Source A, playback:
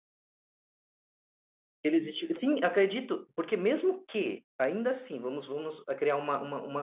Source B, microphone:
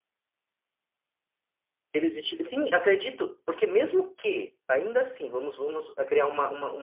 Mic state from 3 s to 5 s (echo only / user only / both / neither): echo only